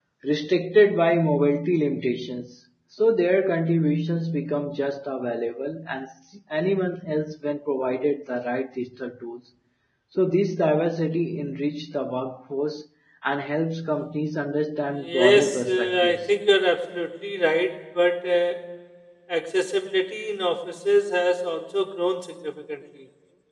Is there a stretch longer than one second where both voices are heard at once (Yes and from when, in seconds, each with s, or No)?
Yes, from 14.9 s